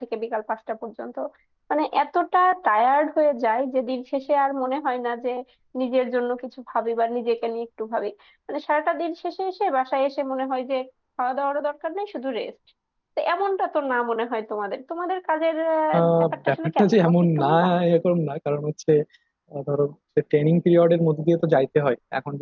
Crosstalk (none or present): present